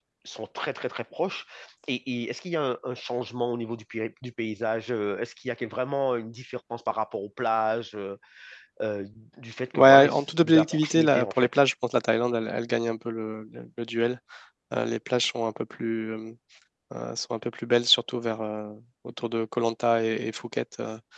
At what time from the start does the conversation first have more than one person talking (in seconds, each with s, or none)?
9.7 s